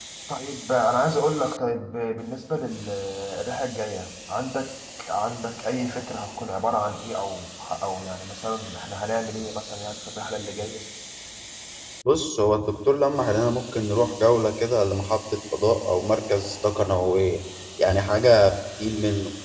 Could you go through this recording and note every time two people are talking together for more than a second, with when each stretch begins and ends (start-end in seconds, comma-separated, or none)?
none